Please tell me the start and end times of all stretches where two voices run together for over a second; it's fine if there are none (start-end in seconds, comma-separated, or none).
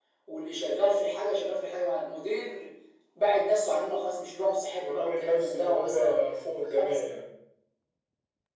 4.8-6.2